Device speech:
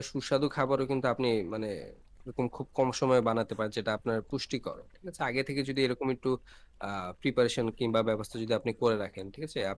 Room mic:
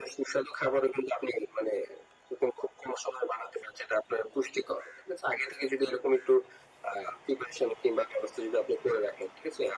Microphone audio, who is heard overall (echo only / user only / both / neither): echo only